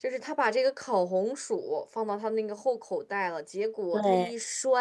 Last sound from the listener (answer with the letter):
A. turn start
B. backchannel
B